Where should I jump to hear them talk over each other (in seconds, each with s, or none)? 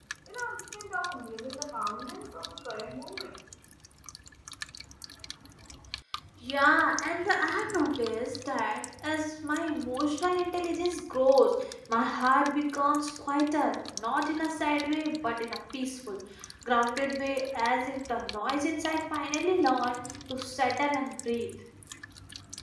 none